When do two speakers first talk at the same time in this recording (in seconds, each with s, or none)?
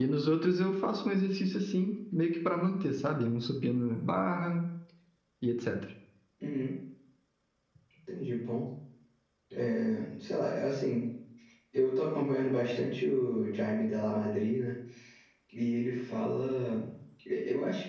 none